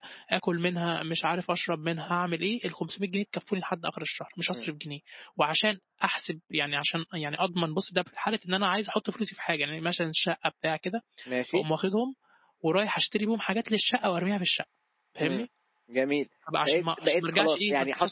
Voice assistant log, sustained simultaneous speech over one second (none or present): present